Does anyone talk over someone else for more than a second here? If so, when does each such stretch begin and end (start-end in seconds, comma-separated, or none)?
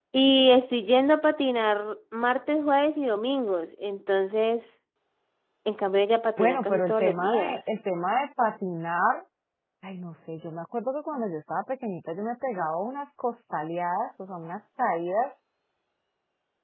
6.4-7.6